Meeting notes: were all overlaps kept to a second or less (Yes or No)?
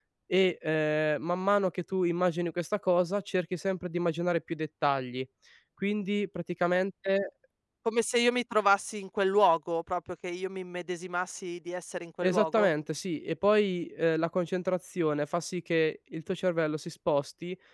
Yes